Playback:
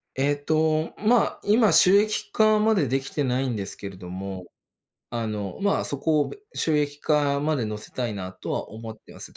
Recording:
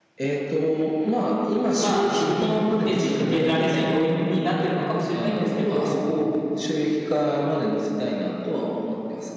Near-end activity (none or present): present